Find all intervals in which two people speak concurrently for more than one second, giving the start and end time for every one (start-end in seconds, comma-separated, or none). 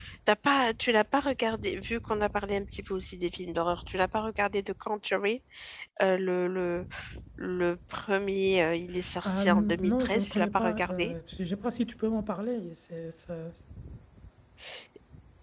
9.2-11.1